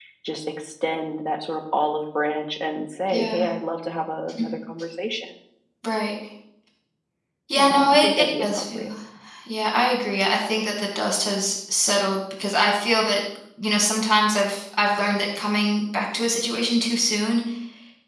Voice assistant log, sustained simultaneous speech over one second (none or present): present